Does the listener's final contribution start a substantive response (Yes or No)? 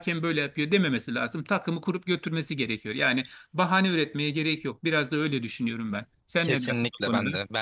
Yes